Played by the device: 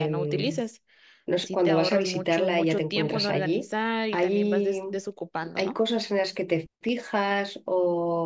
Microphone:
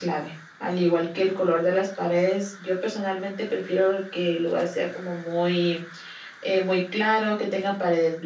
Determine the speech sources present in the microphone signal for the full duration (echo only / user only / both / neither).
user only